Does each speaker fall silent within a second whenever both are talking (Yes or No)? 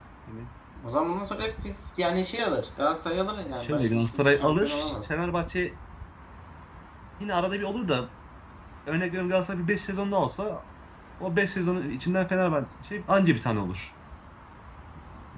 No